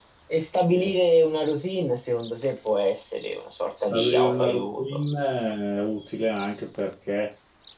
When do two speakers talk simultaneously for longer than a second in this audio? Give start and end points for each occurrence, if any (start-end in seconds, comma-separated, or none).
3.8-5.0